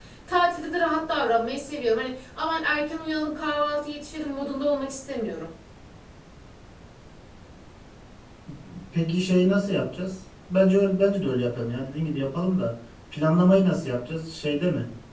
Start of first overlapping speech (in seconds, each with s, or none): none